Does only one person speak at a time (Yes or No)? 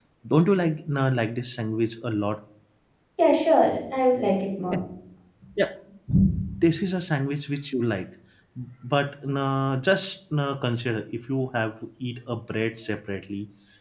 Yes